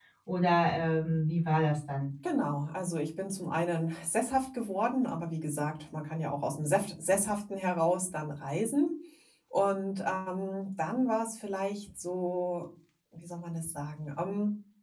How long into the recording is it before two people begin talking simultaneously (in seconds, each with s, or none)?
none